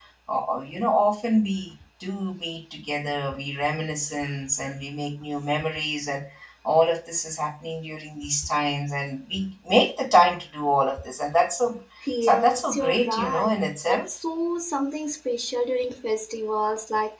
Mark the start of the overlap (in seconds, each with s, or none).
12.2 s